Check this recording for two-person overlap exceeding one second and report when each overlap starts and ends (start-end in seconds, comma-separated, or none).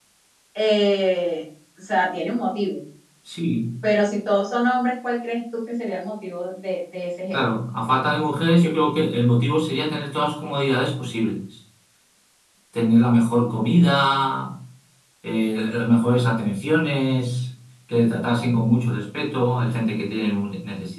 none